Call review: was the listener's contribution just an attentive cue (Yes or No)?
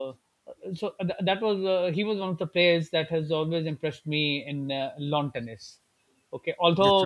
Yes